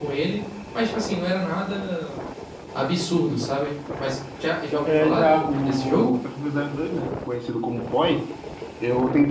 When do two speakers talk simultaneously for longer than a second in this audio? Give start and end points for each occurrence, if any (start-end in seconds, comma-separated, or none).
4.8-6.1